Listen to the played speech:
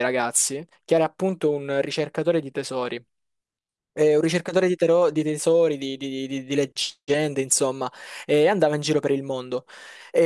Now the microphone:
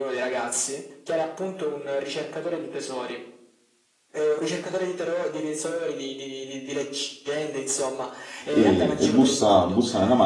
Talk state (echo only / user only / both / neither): both